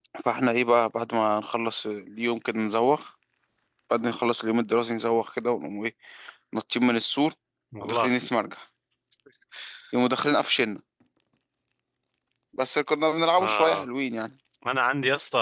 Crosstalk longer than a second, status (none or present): none